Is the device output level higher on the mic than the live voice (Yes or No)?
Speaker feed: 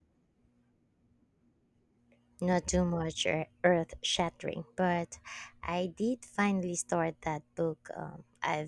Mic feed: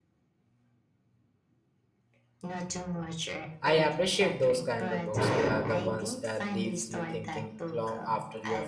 No